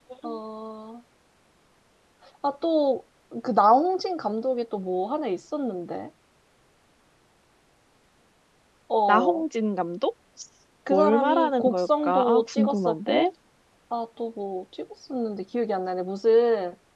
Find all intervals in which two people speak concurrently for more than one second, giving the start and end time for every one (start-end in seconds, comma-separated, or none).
10.9-13.3